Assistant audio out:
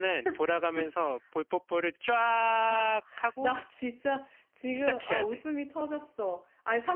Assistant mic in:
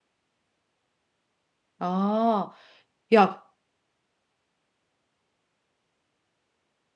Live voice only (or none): 아, 야,